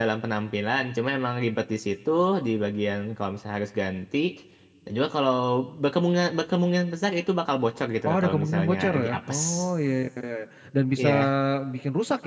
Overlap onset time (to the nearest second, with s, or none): 8 s